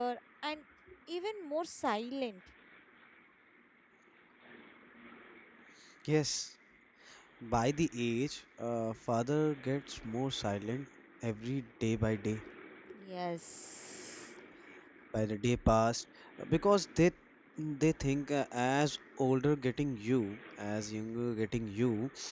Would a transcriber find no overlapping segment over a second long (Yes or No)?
Yes